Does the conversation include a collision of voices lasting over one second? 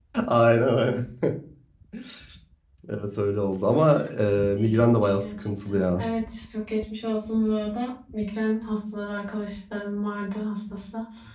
Yes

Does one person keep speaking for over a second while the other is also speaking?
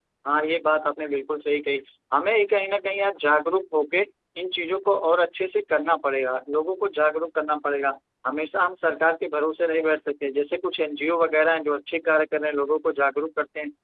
No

